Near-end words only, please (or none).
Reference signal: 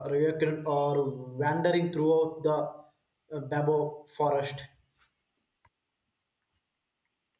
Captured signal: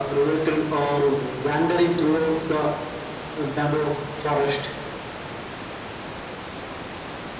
none